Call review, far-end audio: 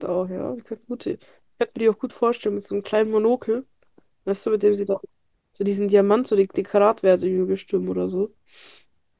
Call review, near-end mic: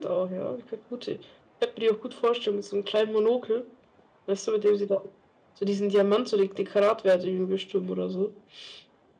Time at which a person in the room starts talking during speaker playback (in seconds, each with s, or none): none